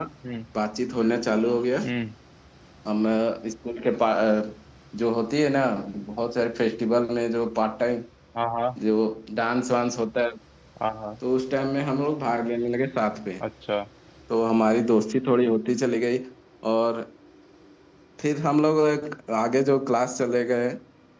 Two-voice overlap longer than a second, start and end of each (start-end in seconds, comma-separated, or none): none